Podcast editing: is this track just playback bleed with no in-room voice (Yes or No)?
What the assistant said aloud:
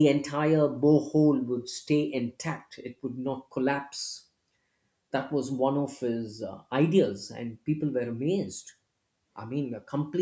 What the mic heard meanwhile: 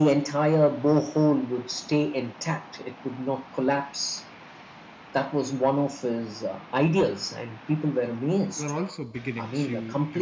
No